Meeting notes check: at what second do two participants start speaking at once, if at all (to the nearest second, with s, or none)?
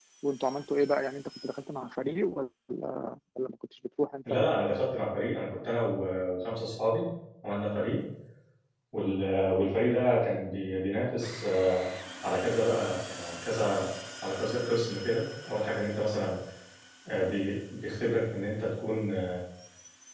none